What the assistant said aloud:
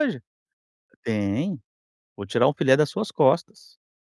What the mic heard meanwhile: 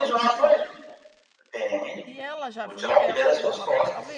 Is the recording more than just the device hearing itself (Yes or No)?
Yes